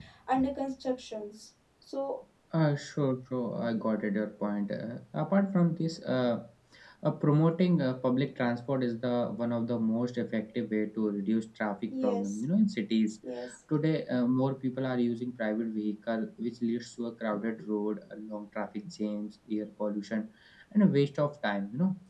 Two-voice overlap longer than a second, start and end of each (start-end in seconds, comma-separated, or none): none